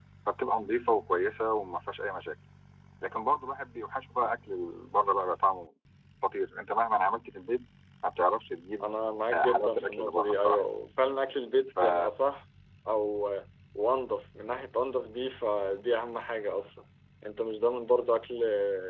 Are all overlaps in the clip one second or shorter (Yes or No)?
No